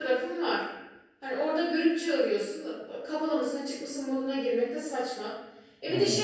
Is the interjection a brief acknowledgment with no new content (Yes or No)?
Yes